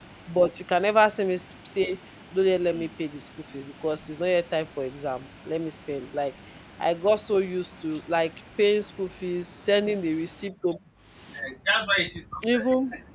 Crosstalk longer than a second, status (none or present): none